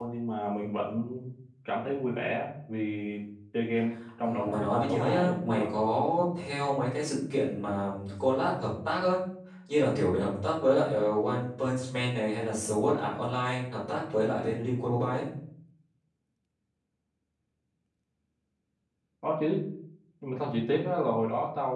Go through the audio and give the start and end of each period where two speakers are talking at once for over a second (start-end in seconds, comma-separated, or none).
4.2-5.7